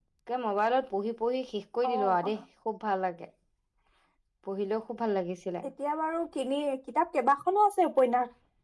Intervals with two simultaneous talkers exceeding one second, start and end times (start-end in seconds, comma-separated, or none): none